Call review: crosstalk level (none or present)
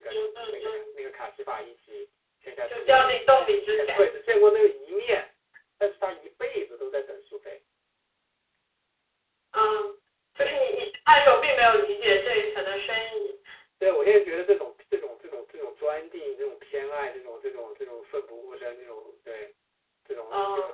present